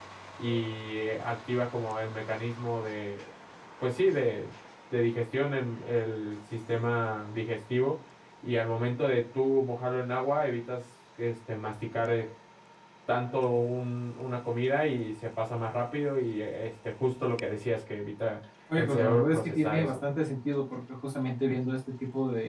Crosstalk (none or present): present